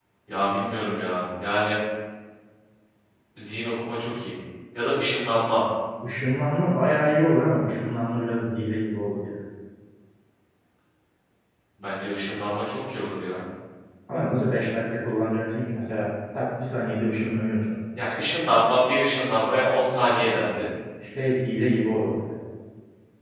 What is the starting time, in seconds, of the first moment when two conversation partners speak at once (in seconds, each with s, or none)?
none